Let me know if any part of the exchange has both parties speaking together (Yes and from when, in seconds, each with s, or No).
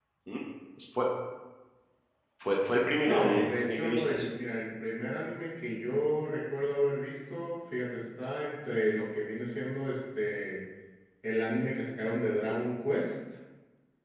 Yes, from 3.0 s